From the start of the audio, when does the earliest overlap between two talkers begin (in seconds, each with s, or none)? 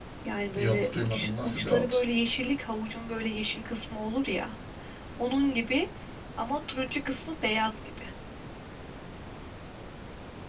0.6 s